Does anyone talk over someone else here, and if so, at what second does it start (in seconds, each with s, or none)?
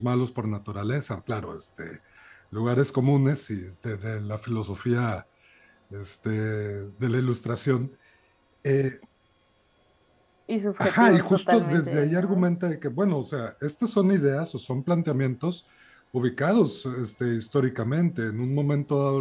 10.8 s